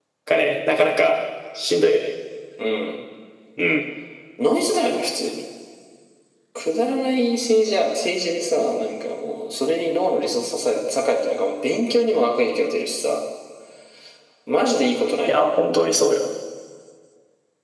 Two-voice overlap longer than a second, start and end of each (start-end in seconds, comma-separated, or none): none